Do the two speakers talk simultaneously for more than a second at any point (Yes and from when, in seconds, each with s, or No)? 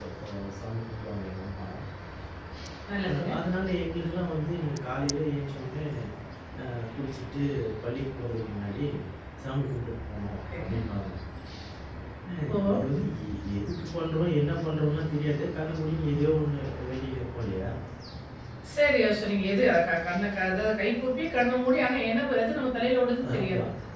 No